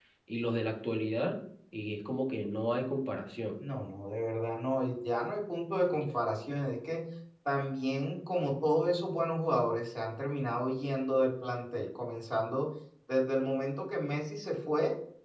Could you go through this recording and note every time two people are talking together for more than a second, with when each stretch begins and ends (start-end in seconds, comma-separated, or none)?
none